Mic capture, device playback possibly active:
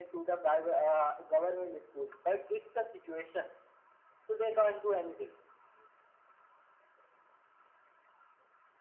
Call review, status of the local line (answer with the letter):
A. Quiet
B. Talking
A